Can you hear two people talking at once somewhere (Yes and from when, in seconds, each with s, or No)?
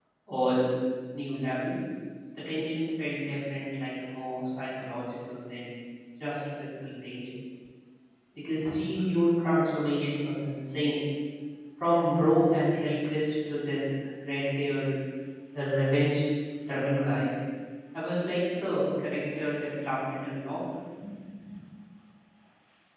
No